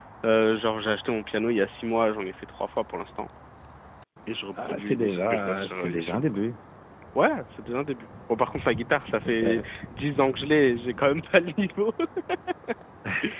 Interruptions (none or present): present